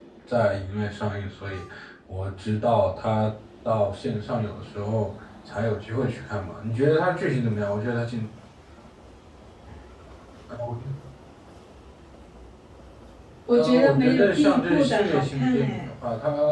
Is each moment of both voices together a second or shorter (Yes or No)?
No